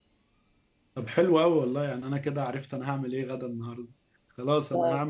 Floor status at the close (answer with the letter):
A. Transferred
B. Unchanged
B